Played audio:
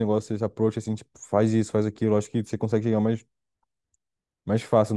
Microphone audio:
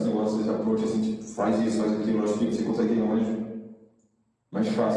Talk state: echo only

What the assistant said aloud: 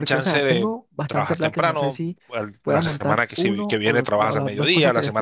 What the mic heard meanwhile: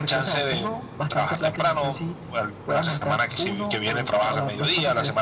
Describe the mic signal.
echo only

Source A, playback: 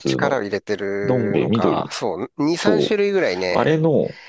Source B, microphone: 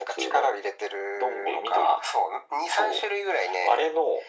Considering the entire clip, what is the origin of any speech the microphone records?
echo only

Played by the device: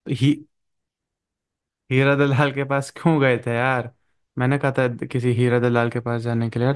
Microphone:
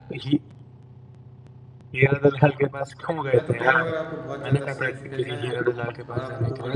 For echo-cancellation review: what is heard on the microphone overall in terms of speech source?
both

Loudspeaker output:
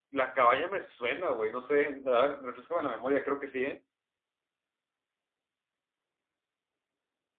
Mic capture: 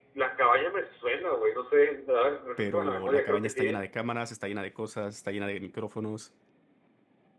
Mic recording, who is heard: both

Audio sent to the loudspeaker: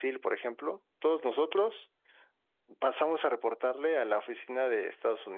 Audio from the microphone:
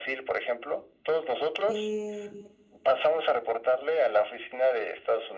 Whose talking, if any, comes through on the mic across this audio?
both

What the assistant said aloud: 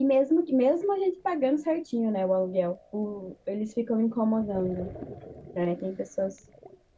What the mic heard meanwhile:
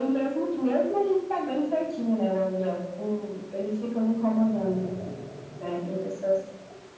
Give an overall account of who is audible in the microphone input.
echo only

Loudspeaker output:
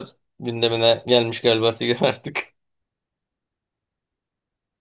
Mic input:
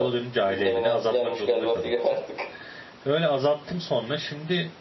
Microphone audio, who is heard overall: both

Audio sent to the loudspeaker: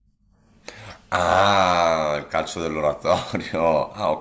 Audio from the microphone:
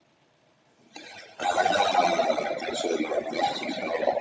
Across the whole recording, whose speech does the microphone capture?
echo only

